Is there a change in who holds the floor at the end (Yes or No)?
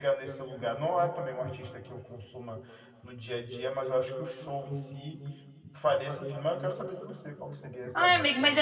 Yes